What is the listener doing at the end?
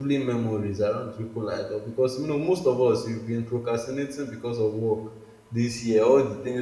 listening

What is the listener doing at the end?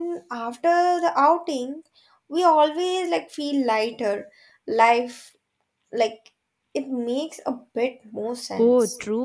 taking over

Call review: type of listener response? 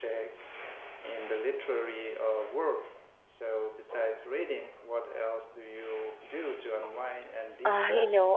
taking over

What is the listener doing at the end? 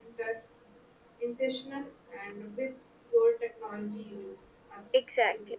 taking over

